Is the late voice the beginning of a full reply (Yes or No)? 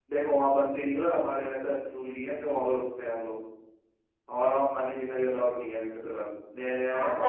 Yes